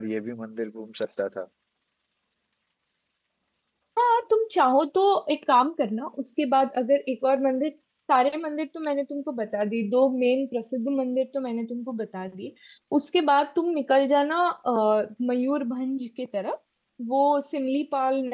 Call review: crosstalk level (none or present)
none